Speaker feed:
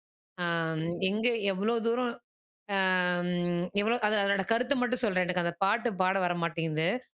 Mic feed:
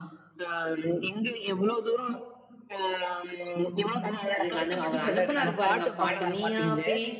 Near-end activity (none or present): present